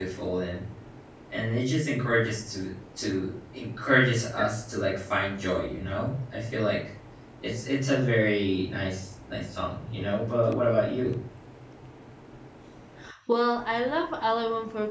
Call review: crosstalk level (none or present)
none